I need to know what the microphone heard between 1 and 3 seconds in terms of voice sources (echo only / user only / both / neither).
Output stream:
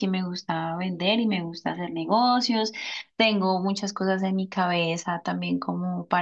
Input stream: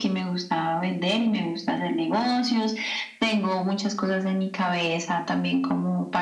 echo only